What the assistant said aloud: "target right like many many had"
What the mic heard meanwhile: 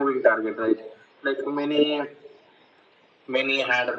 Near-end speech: none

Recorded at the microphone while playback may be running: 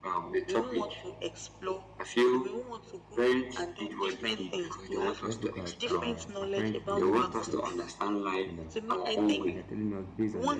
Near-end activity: present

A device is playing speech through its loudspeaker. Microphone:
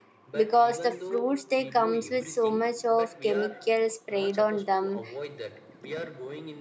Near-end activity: present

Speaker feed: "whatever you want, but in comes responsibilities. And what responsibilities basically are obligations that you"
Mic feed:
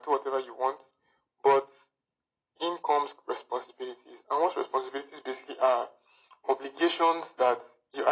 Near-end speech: none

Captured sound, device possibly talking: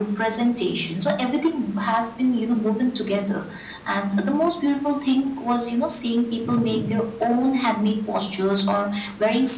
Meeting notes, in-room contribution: none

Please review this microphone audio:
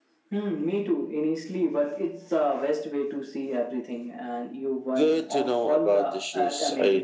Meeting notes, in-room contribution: present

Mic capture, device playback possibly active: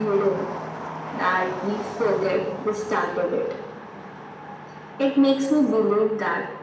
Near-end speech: none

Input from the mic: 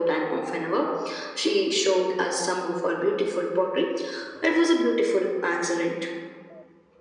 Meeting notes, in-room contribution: none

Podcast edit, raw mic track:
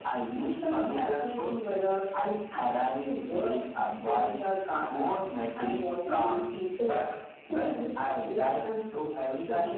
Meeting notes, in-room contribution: none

